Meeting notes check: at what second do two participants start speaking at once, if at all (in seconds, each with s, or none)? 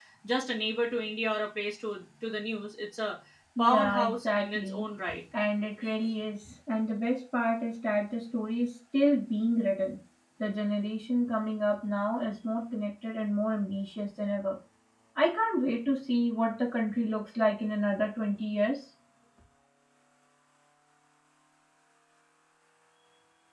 3.6 s